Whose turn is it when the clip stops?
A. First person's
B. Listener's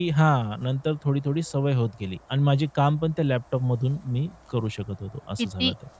B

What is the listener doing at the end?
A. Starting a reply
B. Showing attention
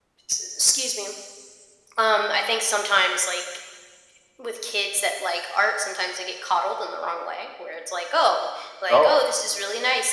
B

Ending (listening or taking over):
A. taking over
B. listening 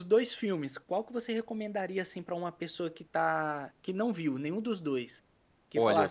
B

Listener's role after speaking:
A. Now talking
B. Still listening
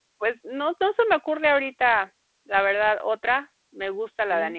B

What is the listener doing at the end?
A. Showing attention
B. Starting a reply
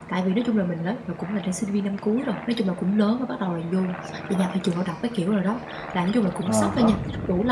A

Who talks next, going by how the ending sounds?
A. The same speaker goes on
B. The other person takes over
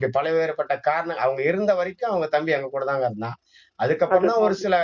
A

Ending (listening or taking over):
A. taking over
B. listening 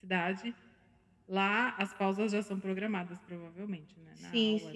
A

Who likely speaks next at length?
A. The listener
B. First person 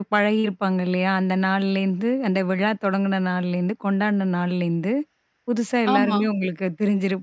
B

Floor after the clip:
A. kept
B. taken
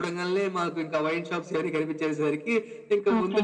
A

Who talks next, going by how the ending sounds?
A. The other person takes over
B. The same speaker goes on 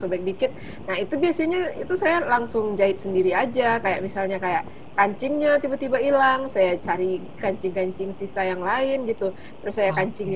B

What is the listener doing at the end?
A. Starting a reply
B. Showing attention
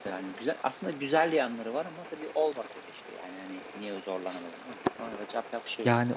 A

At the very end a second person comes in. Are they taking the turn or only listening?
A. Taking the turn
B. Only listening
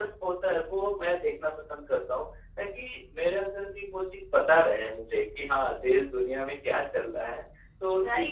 A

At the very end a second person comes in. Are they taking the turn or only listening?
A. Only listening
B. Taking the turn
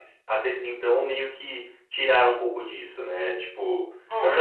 A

